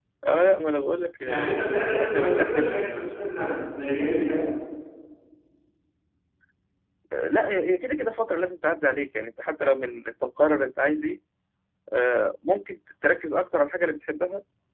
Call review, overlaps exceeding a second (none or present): present